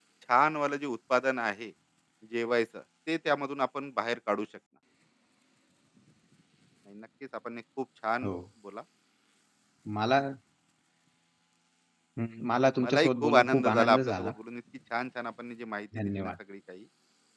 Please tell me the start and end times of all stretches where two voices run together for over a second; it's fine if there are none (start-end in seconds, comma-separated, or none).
12.8-14.3